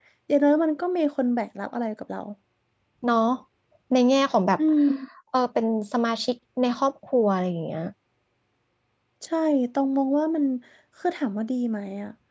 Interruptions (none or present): none